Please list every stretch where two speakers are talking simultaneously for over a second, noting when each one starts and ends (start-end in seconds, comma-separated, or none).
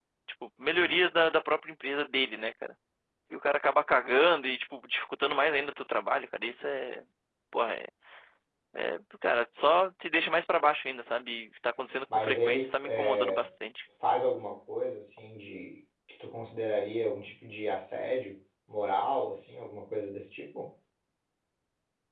12.1-13.4